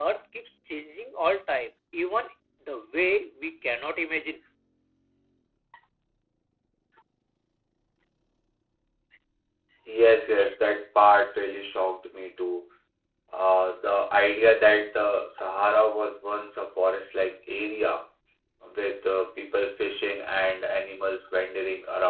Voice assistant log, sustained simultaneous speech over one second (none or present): none